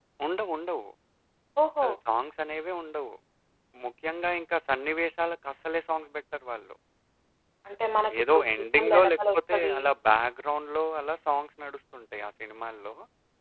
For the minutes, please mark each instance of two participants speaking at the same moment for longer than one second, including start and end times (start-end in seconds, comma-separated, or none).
8.2-9.8